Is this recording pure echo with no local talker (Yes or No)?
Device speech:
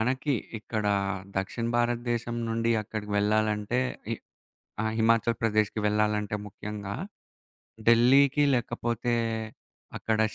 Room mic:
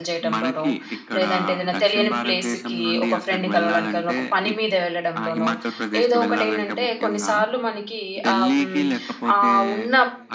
No